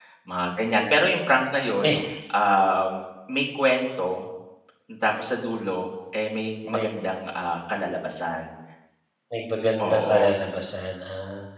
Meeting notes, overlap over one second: none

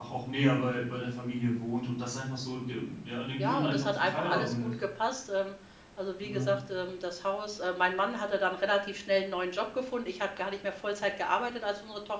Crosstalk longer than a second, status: present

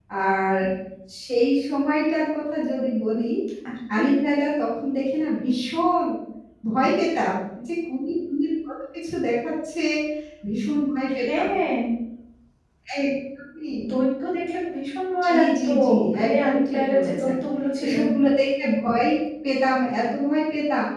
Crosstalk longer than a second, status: present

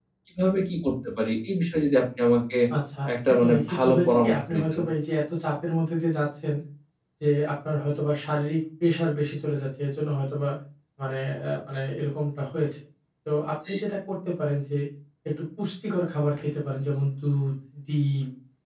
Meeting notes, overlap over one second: present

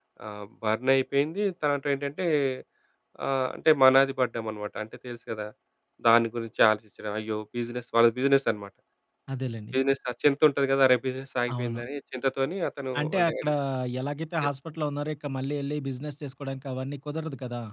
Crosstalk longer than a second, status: none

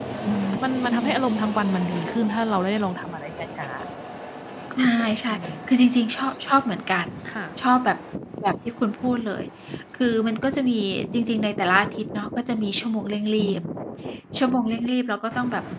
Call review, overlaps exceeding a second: none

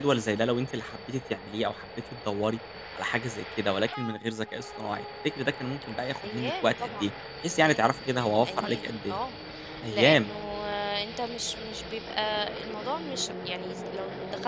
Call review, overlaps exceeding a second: present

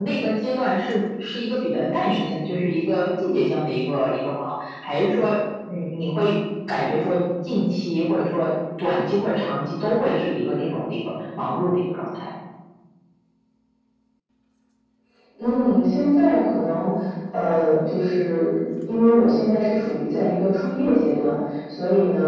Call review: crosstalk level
none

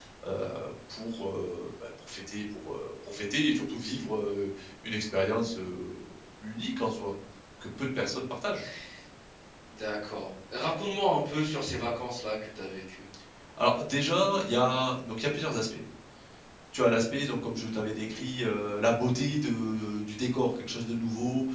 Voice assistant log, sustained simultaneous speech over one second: none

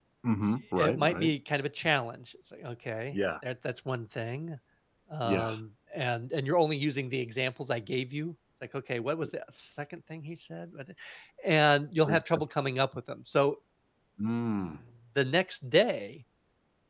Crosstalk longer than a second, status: none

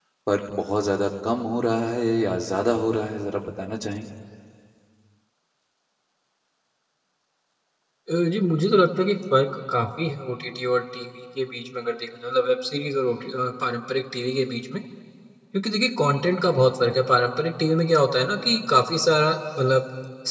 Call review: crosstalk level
none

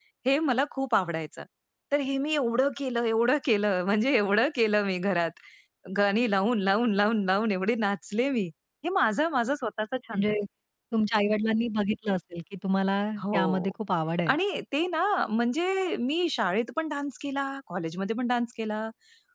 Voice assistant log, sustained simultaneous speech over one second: none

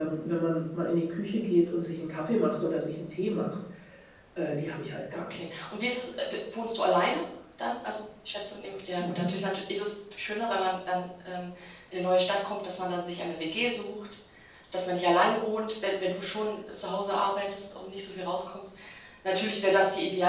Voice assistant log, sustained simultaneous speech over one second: none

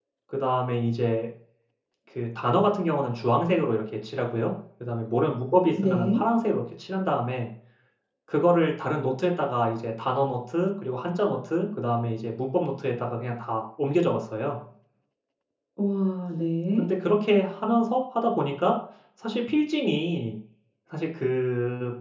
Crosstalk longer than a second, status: none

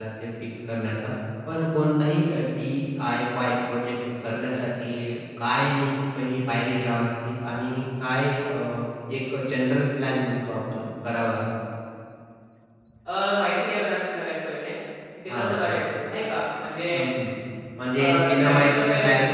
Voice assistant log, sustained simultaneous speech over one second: present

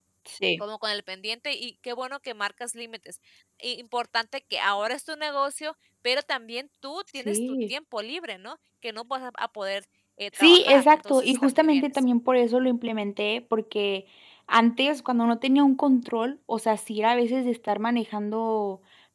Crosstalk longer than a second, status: present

